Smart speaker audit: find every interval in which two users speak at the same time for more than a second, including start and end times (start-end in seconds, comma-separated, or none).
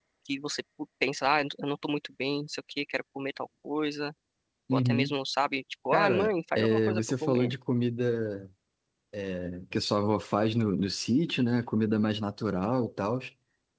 5.9-7.5